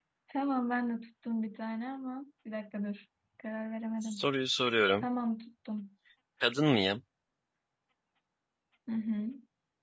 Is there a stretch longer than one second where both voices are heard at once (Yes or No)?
No